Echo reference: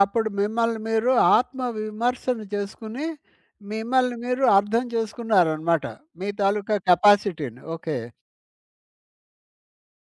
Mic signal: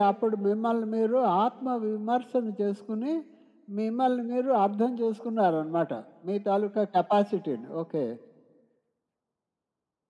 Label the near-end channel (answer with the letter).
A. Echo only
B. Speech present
A